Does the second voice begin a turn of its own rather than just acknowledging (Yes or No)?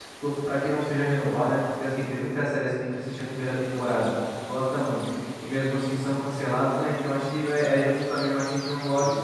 No